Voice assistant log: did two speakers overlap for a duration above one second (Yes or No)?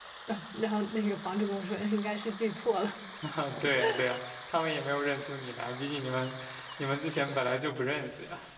No